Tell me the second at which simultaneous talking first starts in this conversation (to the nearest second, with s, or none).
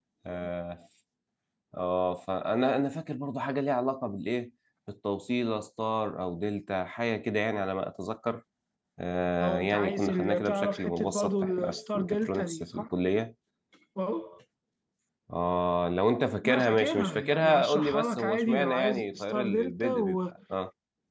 9 s